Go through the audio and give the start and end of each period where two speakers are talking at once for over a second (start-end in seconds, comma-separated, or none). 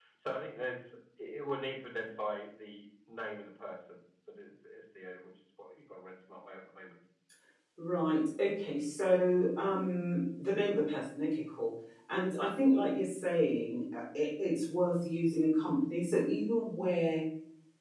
none